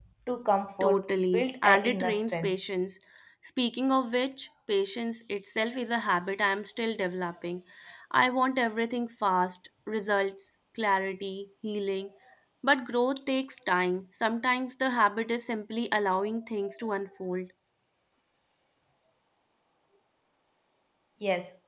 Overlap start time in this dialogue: 0.8 s

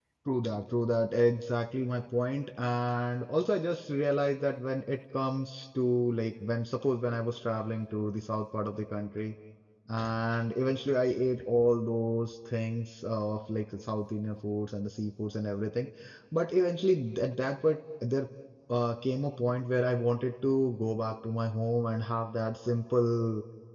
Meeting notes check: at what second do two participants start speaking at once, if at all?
none

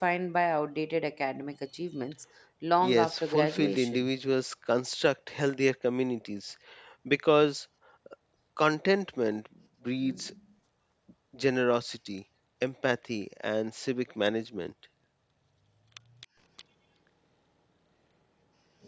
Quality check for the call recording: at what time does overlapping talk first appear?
2.8 s

